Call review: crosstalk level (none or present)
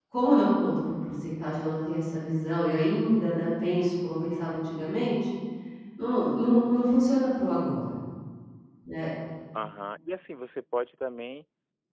none